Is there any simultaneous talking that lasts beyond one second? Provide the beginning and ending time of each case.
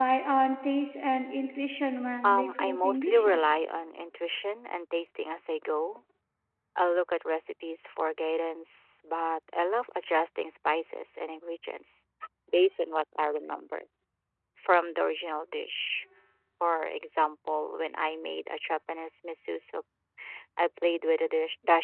2.2-3.5

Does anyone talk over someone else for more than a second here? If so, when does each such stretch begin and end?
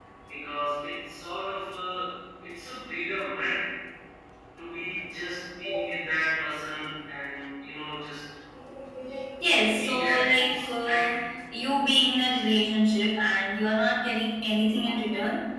9.8-11.0

